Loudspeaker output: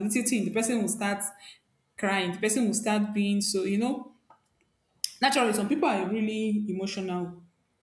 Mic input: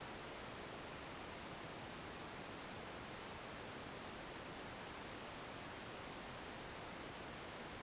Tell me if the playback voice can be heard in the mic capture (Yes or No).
No